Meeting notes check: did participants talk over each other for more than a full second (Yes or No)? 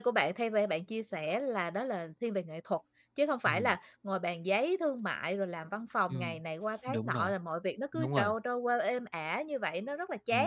No